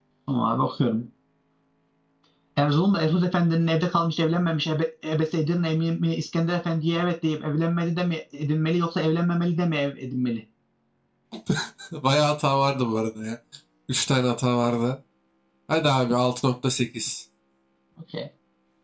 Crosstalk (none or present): none